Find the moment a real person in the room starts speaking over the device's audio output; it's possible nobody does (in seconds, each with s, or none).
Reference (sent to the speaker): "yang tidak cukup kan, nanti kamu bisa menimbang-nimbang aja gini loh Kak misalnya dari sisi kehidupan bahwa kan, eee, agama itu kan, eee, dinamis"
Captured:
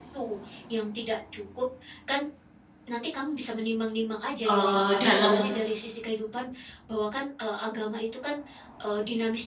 4.5 s